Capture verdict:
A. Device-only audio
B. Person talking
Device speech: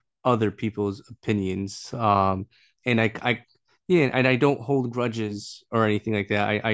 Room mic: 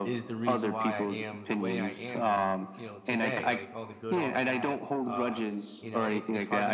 B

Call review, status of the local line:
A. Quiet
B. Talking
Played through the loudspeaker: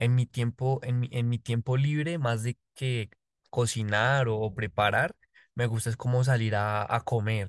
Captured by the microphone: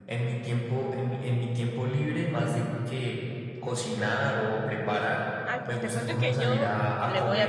B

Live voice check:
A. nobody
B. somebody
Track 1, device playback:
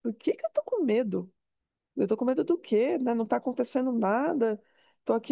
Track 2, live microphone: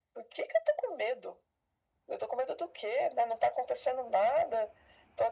A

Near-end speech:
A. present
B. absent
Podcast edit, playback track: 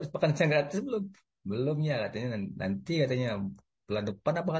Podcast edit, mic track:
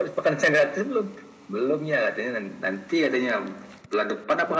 B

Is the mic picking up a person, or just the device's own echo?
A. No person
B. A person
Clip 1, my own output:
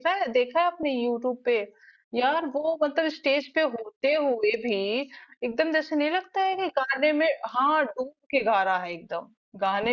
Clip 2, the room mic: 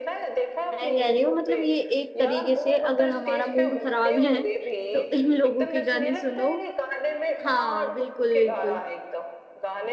B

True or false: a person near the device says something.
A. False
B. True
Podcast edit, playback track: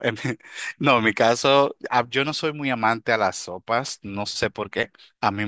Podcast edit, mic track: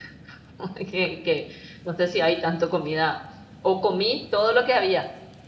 B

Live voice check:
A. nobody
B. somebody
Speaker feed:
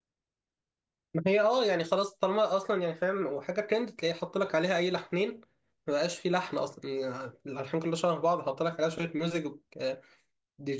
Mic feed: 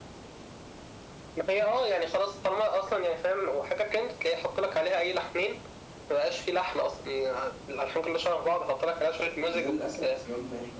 B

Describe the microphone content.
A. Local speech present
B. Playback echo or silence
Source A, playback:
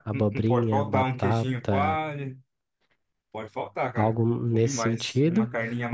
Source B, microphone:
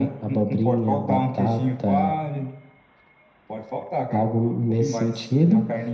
B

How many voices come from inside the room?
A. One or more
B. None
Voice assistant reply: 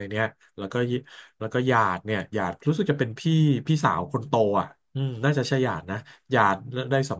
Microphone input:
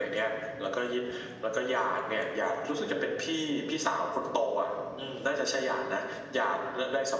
B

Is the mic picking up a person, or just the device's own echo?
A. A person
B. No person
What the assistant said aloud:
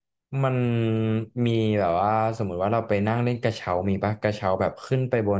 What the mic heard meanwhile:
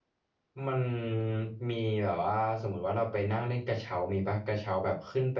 B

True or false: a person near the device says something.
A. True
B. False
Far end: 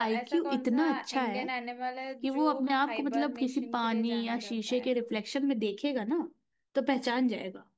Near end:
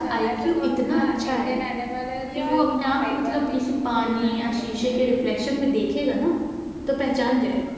A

